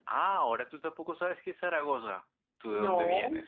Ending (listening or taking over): listening